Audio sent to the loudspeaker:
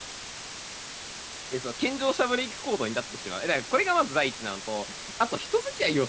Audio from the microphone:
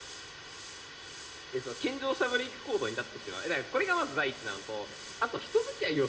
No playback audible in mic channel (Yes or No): No